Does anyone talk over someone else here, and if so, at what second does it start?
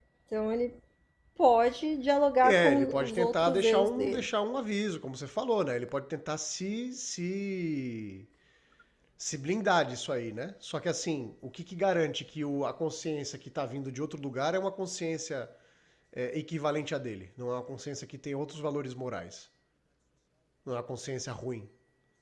2.4 s

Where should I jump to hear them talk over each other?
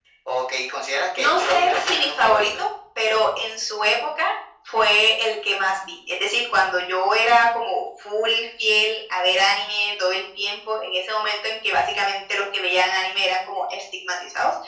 1.2 s

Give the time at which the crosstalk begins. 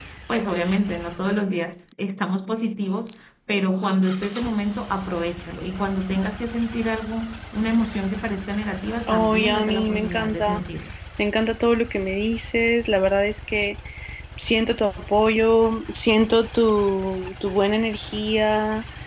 9.1 s

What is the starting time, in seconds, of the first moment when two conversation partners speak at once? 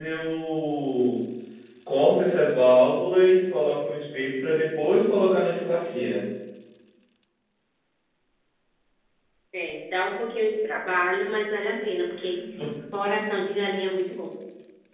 none

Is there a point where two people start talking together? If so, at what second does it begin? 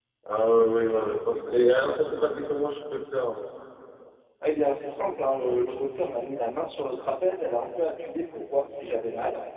0.6 s

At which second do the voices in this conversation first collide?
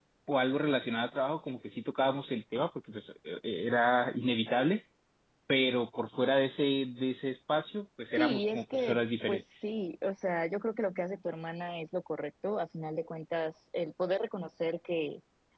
8.2 s

